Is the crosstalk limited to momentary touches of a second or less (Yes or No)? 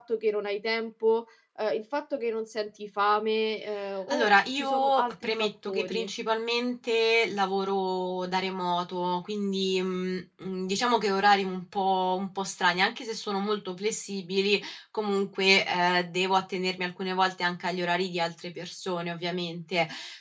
No